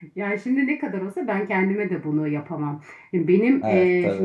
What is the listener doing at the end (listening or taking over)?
listening